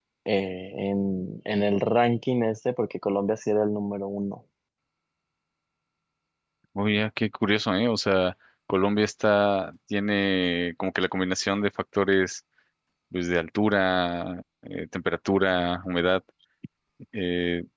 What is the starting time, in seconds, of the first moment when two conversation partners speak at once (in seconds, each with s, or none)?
none